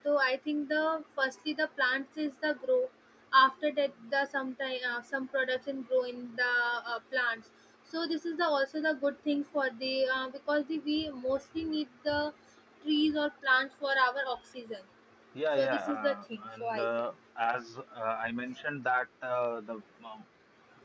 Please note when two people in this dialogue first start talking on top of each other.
15.6 s

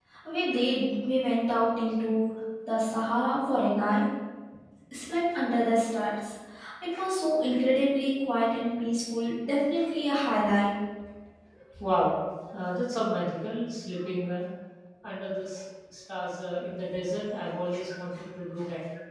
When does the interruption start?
none

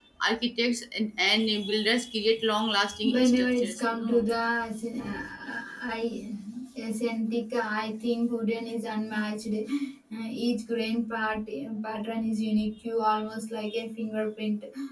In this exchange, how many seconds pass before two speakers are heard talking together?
3.0 s

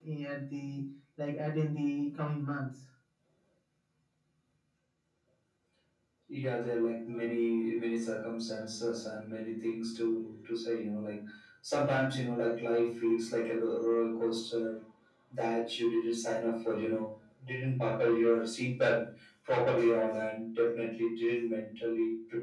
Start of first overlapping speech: none

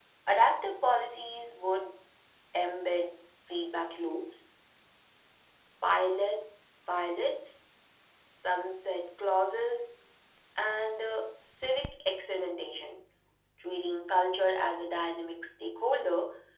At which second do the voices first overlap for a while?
none

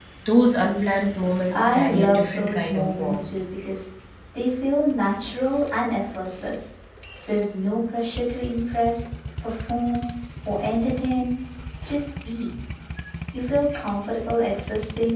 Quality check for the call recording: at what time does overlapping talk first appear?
1.5 s

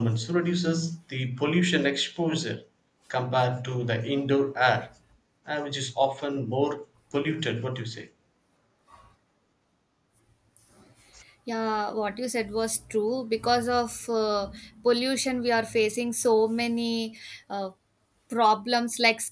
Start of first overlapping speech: none

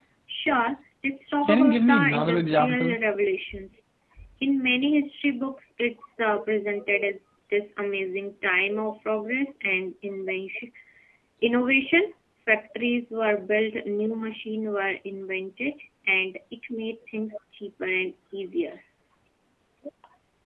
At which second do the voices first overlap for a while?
1.4 s

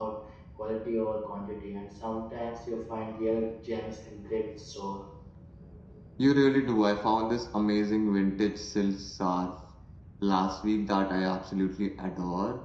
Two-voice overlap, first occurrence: none

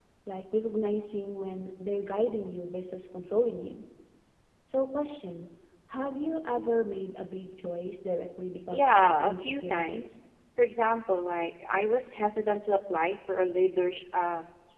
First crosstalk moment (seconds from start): 8.7 s

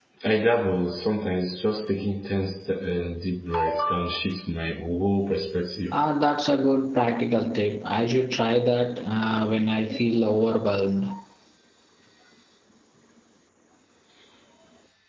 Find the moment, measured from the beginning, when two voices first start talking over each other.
none

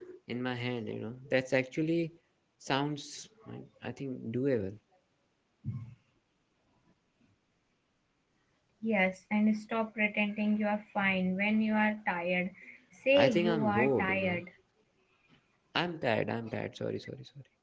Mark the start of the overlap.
13.1 s

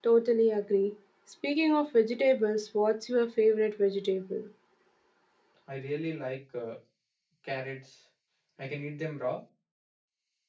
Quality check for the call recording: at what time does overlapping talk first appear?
none

